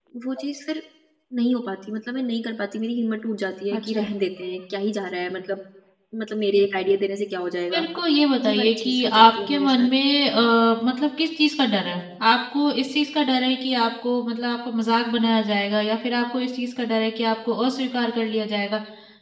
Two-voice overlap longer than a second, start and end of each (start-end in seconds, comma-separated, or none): 8.5-9.9